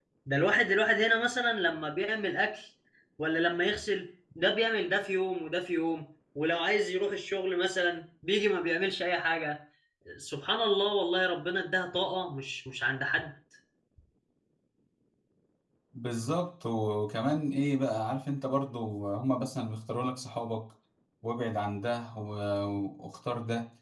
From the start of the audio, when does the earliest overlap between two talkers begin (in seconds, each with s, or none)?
none